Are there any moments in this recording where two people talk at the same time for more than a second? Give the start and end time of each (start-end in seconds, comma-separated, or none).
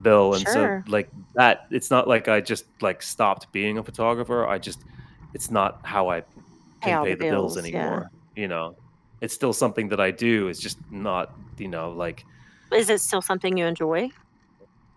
6.8-8.0